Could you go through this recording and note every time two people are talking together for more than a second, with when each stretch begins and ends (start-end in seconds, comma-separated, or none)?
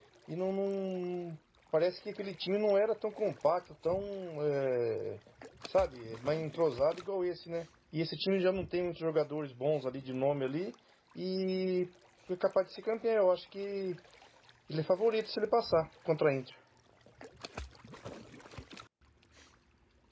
none